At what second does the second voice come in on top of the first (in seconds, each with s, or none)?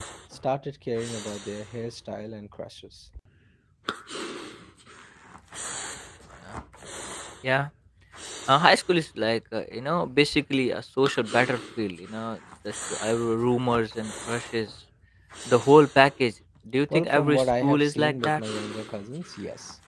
16.9 s